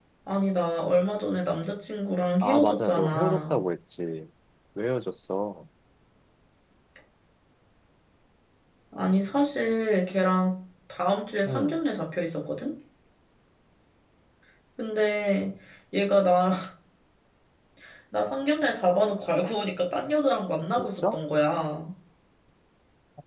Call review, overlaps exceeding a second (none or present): present